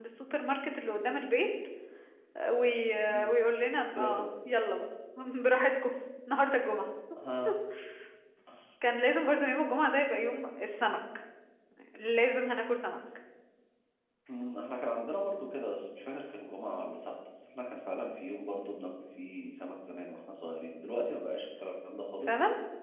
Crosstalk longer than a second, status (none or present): none